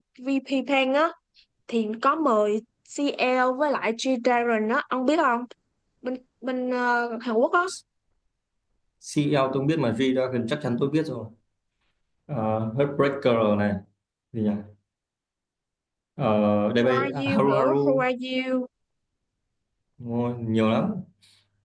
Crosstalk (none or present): present